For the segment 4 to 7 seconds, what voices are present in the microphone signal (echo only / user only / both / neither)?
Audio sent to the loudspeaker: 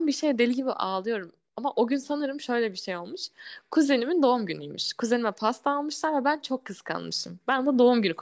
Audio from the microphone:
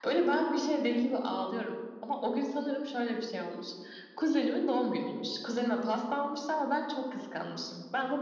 echo only